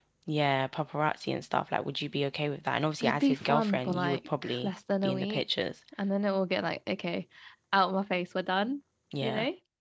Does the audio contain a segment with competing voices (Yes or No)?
Yes